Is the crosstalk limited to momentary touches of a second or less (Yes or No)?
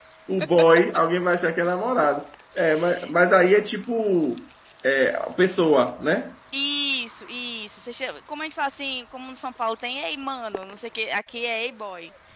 Yes